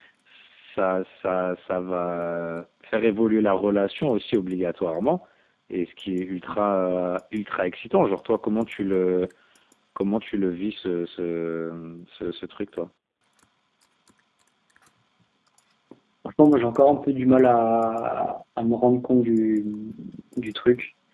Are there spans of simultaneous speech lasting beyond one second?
No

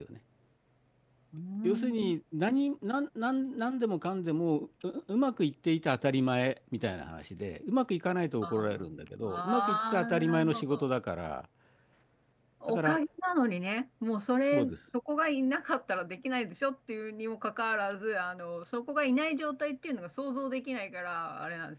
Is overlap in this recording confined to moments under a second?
No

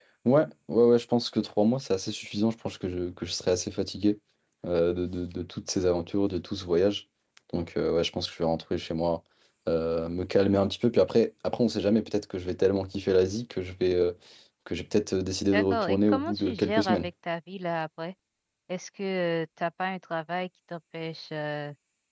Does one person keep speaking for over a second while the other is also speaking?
Yes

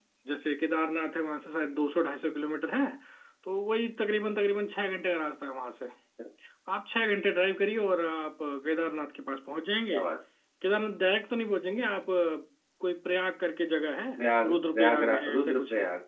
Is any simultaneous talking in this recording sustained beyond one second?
Yes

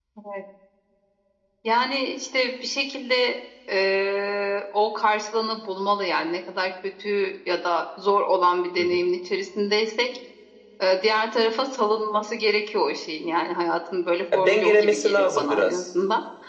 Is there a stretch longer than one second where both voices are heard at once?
Yes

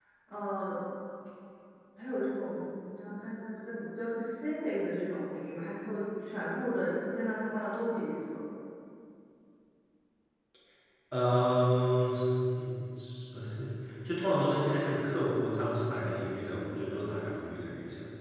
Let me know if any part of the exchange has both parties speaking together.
No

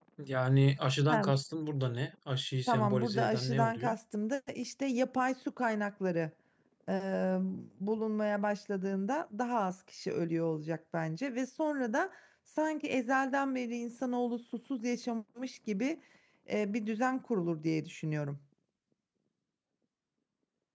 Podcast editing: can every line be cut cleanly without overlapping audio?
No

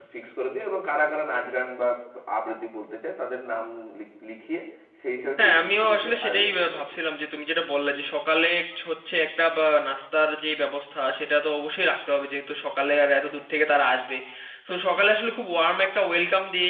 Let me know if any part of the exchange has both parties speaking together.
Yes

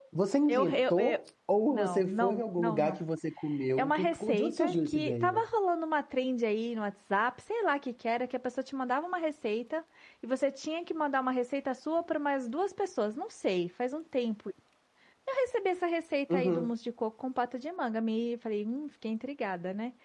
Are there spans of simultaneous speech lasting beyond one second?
Yes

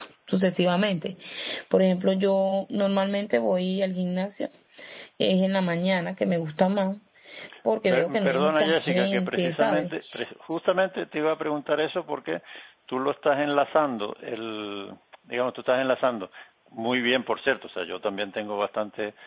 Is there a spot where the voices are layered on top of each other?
Yes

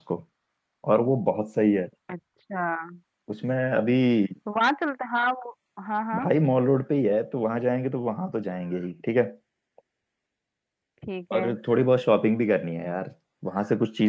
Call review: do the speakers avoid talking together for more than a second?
Yes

